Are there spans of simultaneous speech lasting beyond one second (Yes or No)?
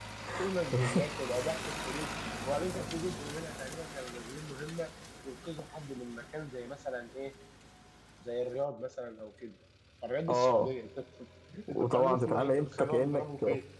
Yes